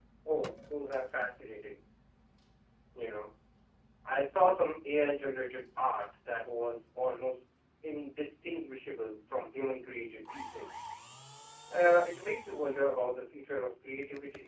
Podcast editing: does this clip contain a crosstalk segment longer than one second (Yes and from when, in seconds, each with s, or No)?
No